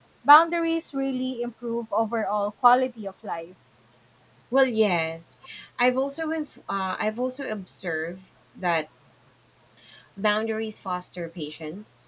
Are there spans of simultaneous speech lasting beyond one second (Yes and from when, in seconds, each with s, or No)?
No